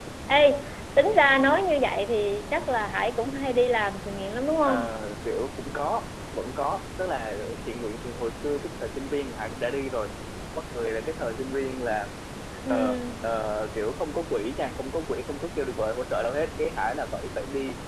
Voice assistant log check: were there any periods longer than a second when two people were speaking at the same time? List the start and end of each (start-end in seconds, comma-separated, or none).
none